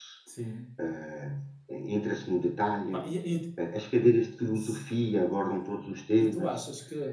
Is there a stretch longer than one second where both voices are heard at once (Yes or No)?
No